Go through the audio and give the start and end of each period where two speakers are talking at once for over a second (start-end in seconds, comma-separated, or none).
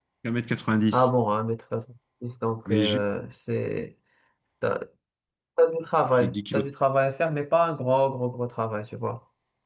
none